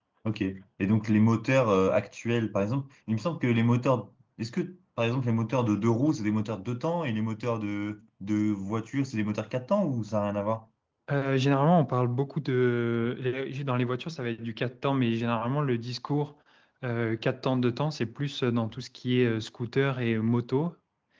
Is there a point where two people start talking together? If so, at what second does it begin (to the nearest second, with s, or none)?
none